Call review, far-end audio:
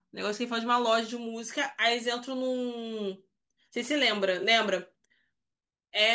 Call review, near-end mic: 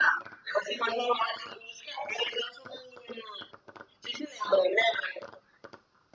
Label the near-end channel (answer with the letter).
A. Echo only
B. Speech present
A